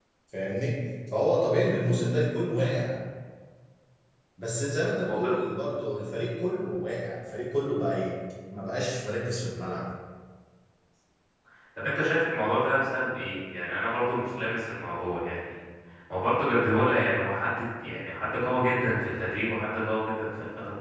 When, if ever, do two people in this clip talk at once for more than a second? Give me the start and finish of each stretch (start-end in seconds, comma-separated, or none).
none